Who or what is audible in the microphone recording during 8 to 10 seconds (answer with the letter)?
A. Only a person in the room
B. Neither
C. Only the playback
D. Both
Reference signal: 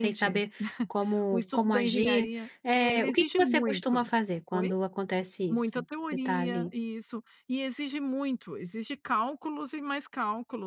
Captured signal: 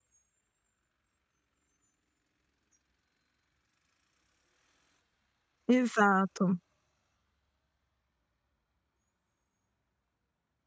B